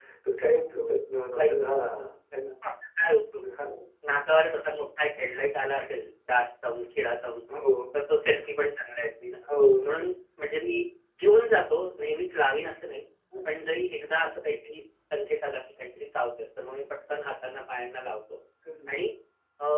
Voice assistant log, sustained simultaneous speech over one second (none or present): none